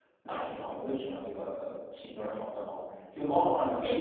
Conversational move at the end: listening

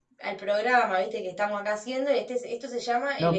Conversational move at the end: taking over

